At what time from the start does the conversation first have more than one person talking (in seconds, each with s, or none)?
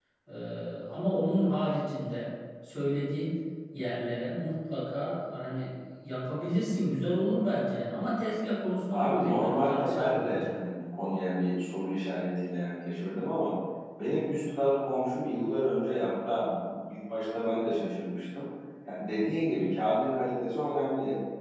8.9 s